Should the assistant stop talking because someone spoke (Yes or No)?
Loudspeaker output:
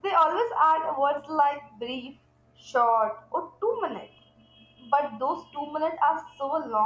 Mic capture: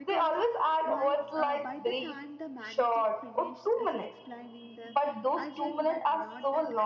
Yes